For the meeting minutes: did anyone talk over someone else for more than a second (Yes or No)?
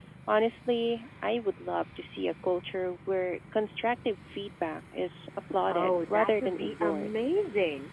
Yes